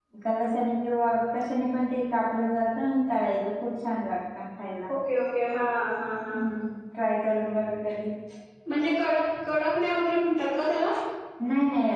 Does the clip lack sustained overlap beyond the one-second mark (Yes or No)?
Yes